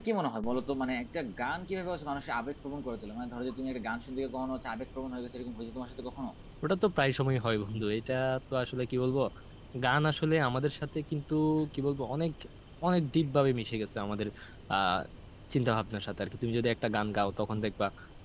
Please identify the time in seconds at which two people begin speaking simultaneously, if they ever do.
none

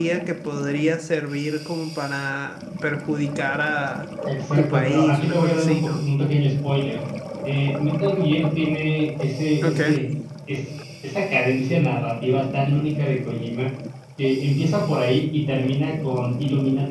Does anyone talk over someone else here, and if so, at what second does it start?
5 s

